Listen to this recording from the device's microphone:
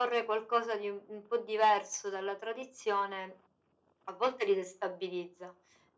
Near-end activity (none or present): none